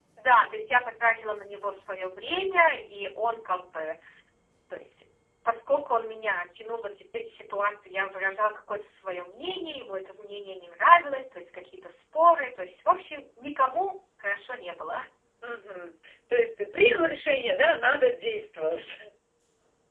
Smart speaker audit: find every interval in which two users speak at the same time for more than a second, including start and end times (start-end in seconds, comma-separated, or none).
none